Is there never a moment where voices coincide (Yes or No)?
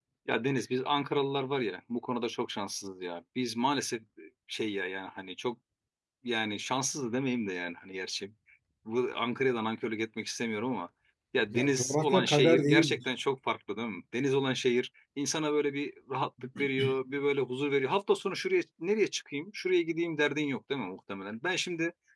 No